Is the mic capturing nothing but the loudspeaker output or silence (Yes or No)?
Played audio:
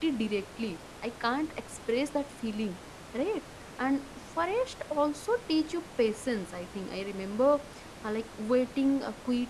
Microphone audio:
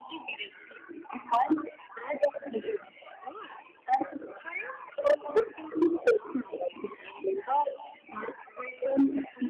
Yes